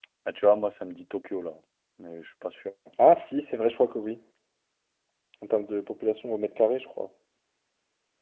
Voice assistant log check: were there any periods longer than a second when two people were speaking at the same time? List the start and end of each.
none

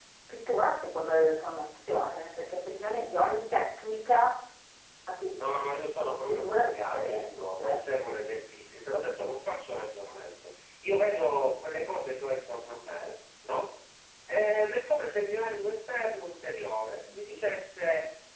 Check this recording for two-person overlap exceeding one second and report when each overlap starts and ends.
6.2-7.8

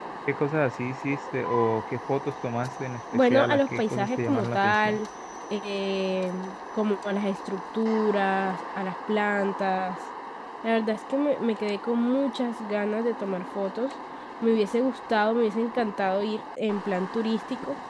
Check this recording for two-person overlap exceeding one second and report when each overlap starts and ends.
3.3-5.0

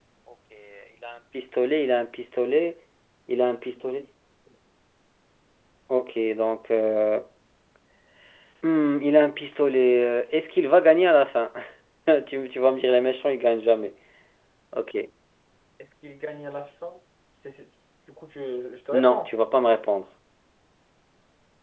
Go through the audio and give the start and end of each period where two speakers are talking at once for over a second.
none

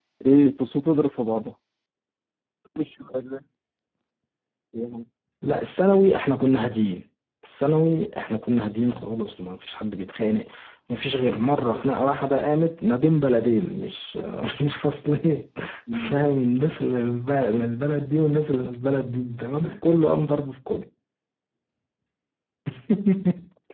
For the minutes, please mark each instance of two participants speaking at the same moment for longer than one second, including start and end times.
none

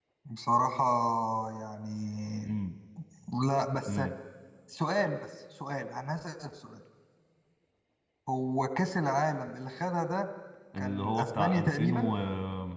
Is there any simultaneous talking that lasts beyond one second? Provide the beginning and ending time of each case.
10.8-12.1

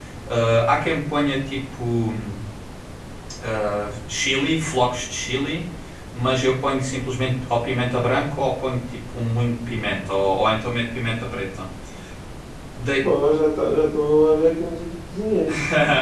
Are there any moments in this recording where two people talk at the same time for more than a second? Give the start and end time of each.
none

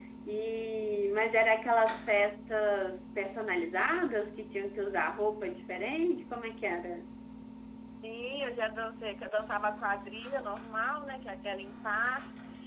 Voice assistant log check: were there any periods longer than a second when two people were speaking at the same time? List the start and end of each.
none

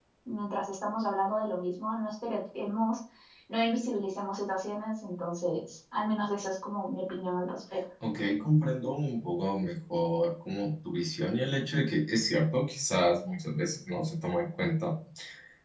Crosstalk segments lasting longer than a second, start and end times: none

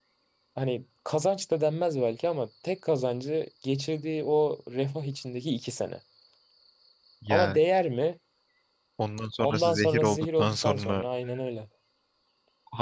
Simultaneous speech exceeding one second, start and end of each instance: 9.4-11.0

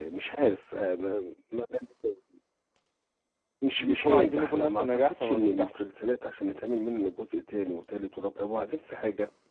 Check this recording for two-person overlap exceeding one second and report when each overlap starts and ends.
3.8-5.7

